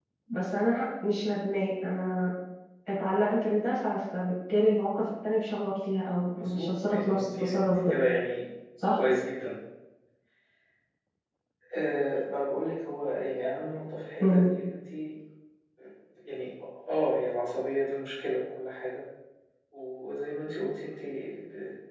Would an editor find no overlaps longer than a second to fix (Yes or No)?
No